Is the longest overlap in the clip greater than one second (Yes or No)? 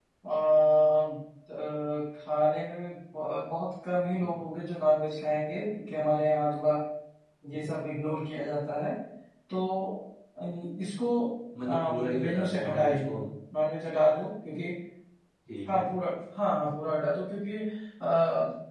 Yes